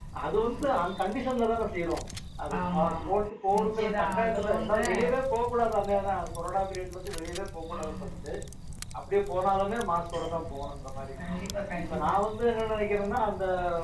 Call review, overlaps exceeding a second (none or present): present